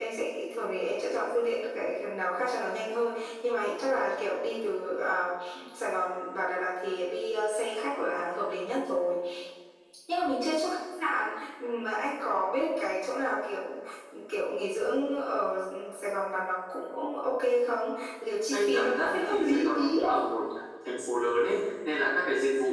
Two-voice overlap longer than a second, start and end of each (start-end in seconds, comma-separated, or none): 18.5-20.0